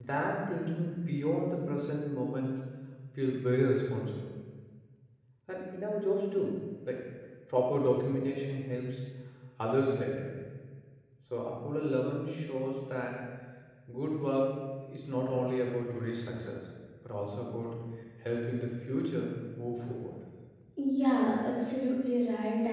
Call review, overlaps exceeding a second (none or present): none